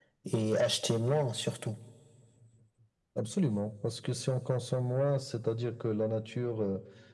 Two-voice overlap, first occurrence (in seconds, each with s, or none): none